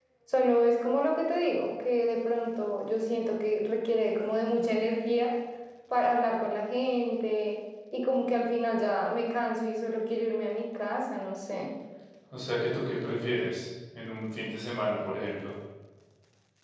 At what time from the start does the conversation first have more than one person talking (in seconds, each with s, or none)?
none